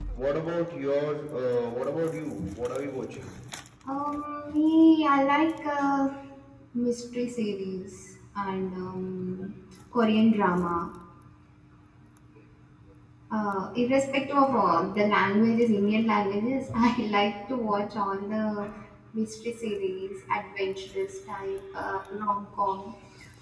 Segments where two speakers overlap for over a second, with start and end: none

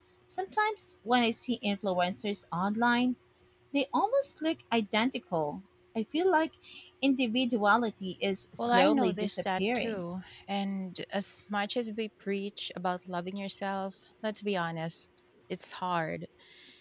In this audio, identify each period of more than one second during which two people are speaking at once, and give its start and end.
8.6-10.0

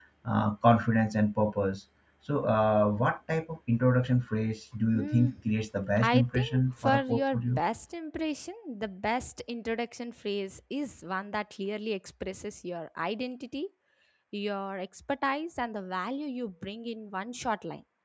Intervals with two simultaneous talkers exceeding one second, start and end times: 6.0-7.6

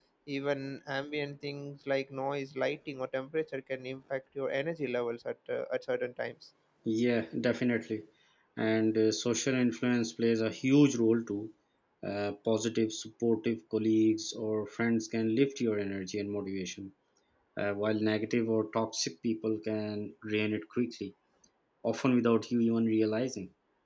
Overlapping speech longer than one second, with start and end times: none

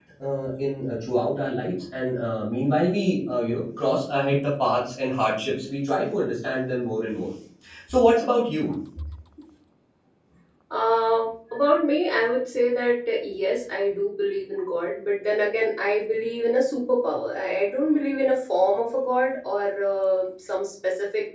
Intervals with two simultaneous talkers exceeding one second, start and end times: none

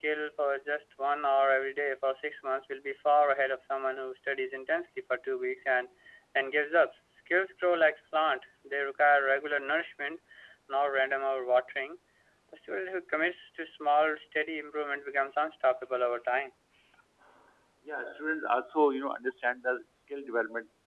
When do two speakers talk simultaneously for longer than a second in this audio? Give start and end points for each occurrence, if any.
none

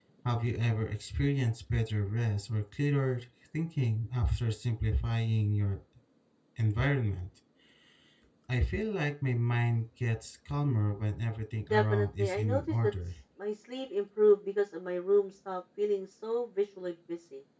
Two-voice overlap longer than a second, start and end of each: 11.7-12.9

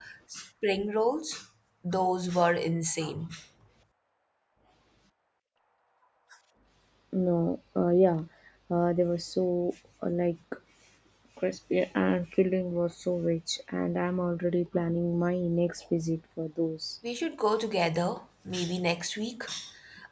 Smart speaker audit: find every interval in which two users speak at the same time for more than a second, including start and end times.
none

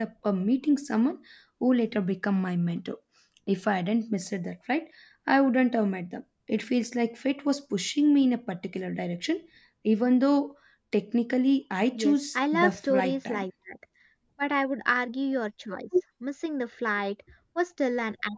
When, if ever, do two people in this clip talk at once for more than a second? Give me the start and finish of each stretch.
11.9-13.4

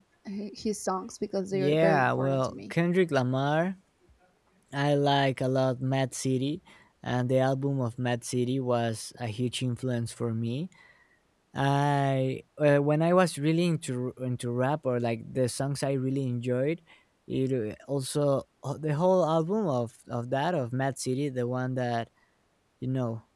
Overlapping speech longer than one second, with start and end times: 1.5-2.7

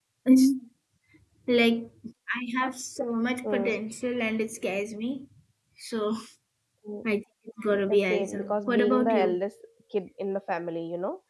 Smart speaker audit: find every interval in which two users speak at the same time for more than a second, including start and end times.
7.9-9.4

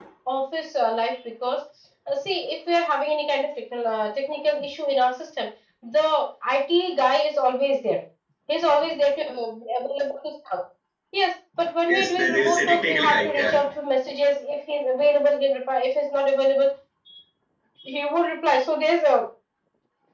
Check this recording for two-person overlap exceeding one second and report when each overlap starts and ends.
11.9-13.6

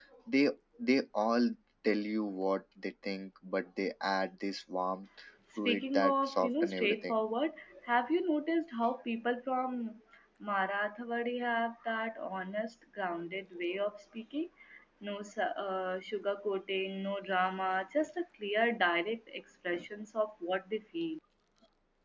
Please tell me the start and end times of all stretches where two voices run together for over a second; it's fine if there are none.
5.7-7.2

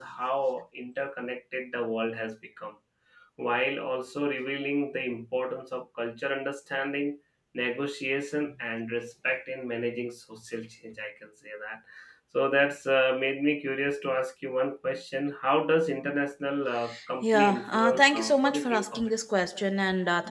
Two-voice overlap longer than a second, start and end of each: 17.2-19.1

